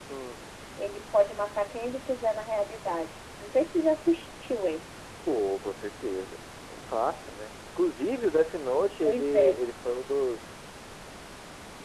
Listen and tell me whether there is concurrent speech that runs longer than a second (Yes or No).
No